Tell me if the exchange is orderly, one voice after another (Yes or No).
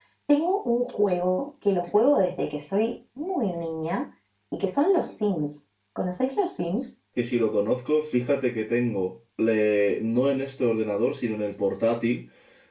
Yes